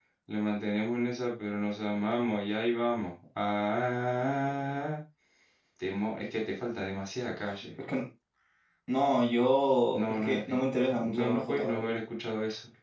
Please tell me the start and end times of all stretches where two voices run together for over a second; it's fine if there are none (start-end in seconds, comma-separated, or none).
9.9-11.9